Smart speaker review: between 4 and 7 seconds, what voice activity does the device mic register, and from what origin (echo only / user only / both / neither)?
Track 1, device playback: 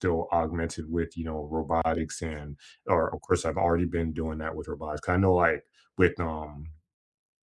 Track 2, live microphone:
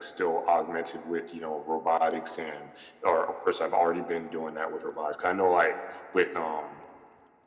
echo only